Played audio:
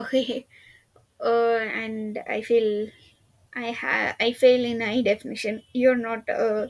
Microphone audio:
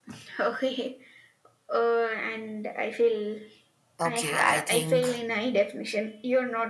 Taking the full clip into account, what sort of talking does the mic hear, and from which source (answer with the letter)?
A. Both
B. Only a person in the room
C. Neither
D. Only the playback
A